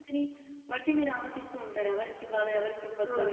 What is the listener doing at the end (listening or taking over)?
taking over